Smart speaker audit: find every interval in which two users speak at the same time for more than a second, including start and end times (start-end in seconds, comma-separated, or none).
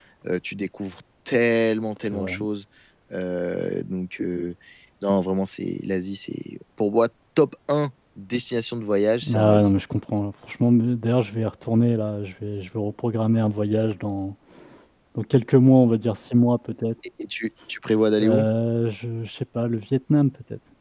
none